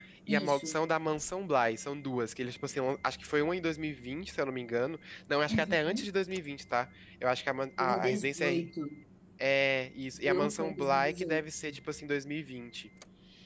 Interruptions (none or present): present